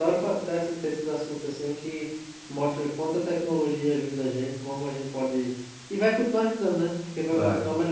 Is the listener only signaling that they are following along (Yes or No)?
Yes